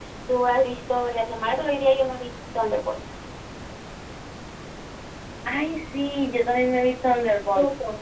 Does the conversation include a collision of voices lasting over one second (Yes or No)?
No